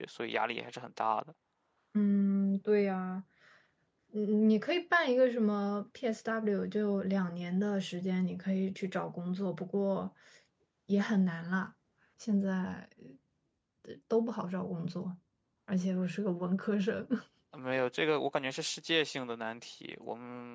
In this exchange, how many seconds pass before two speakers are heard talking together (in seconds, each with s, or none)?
none